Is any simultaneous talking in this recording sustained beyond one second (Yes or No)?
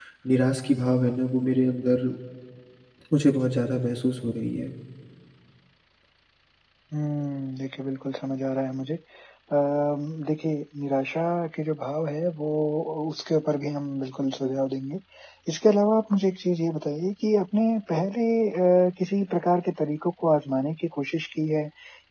No